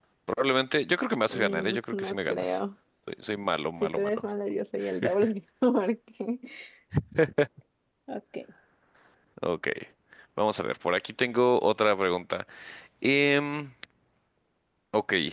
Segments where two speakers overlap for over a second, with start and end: 1.3-2.6

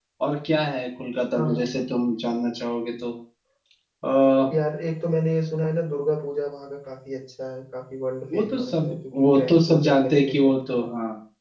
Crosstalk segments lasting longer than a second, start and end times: 8.3-10.9

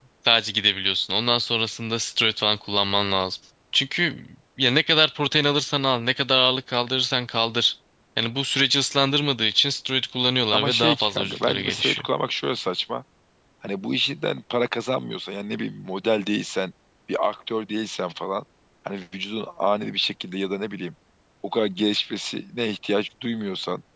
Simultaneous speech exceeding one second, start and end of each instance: 10.5-12.1

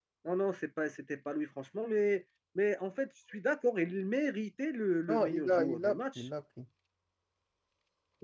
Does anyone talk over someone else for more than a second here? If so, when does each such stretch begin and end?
5.1-6.3

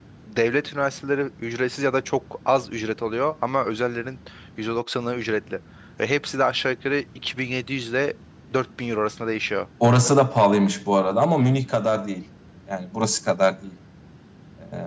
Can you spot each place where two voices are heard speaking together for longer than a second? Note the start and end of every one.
none

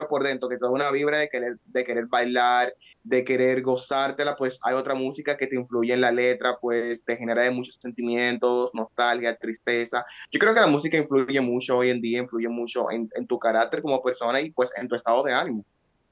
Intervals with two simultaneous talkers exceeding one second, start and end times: none

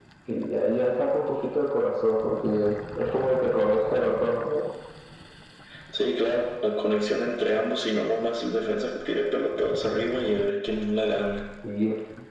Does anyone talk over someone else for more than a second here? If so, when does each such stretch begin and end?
none

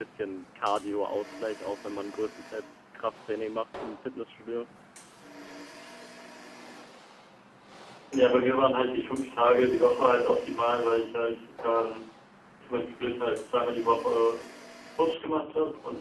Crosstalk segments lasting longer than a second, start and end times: none

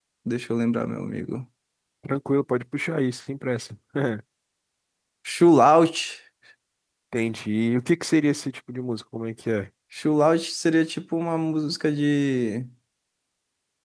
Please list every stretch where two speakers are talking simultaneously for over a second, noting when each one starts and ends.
none

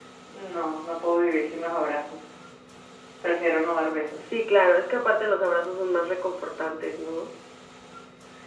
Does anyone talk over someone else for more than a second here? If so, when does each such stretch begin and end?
none

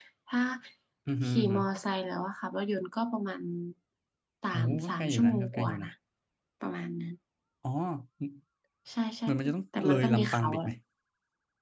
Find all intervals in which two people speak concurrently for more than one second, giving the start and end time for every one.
4.5-5.9, 9.3-10.7

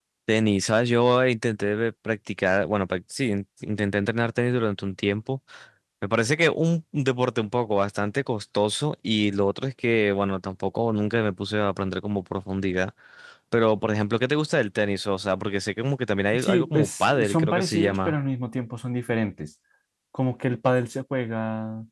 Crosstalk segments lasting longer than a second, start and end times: 16.3-18.2

